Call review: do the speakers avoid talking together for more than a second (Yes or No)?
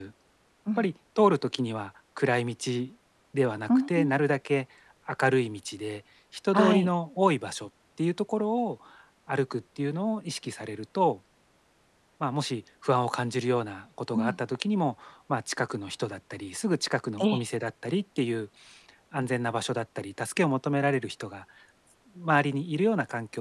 Yes